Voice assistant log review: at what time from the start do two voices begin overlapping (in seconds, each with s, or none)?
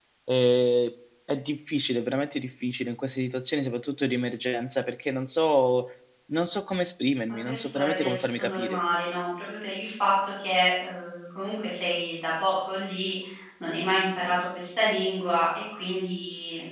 7.4 s